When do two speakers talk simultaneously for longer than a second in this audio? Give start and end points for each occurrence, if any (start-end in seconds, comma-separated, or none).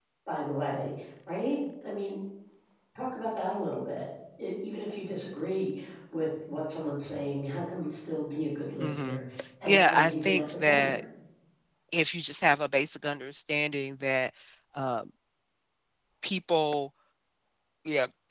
9.6-10.9